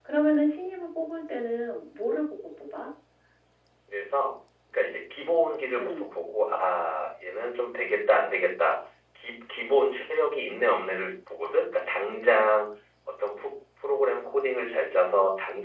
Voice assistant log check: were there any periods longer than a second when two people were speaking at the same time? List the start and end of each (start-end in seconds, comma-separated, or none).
none